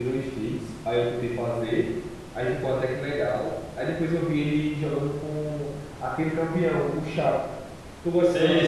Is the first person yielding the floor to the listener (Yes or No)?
Yes